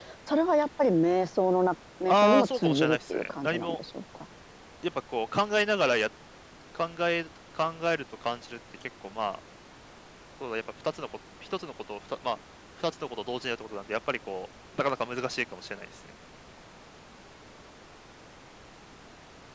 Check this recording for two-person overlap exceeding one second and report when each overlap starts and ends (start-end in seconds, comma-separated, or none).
2.1-3.8